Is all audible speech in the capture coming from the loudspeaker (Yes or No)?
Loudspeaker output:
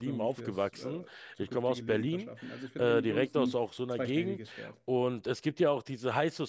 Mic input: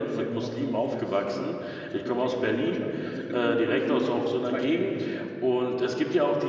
Yes